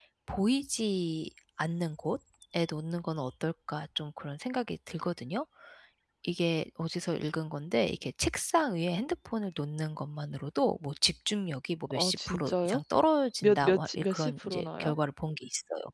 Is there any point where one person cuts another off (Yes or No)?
Yes